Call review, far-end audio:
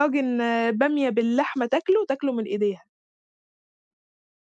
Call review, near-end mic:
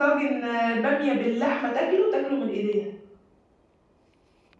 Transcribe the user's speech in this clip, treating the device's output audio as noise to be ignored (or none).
none